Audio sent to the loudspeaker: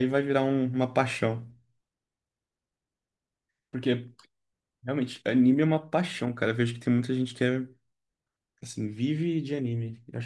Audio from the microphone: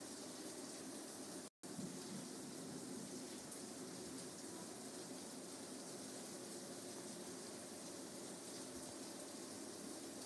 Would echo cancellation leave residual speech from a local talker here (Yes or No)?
No